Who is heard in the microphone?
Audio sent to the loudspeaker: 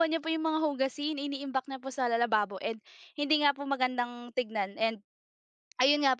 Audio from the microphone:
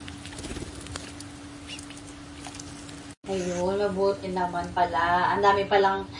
user only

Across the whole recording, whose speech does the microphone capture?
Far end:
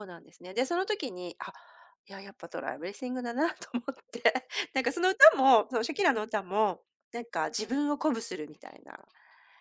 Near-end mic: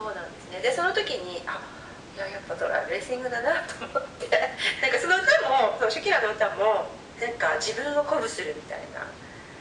echo only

